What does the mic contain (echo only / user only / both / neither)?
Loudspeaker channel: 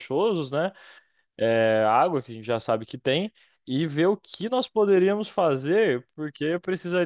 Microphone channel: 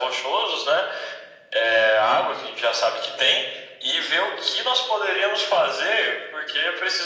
echo only